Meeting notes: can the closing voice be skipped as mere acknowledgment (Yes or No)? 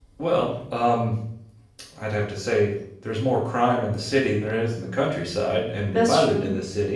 Yes